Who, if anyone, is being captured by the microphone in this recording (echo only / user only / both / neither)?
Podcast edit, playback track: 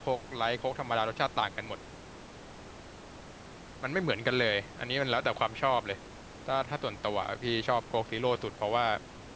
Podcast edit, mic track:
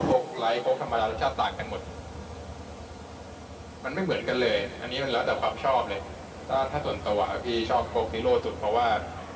echo only